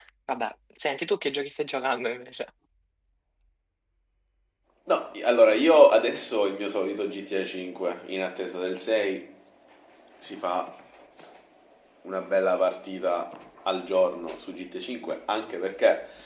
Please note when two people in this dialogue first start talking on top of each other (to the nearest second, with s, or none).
none